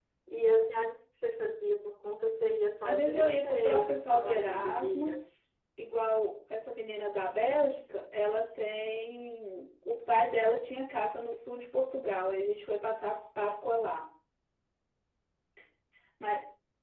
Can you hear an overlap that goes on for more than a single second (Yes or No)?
Yes